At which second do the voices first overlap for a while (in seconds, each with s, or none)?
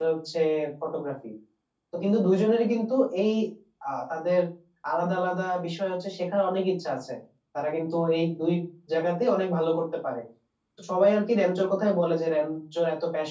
none